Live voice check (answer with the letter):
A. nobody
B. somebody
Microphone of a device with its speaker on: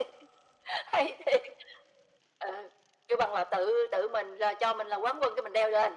A